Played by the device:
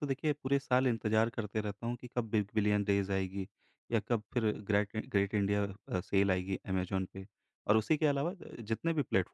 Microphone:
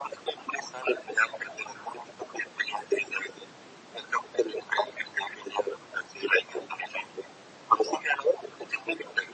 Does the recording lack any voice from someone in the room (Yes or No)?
Yes